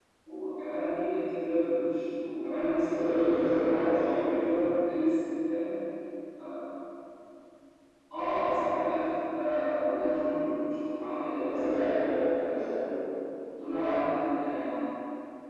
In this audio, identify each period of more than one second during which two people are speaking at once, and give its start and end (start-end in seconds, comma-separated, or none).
2.8-4.5, 11.2-12.8